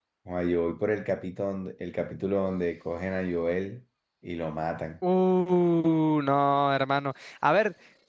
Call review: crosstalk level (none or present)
none